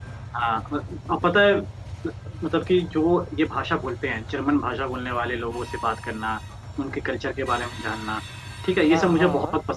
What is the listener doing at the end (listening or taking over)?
listening